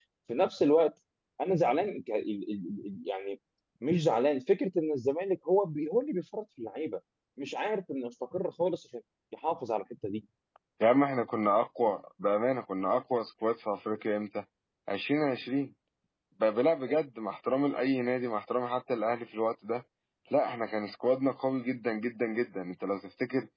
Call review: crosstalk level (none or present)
none